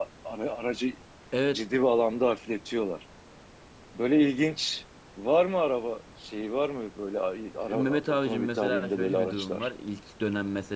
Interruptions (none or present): present